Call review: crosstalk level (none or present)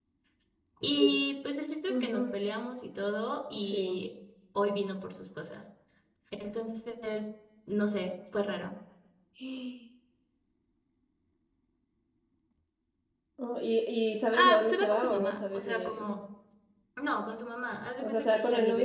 present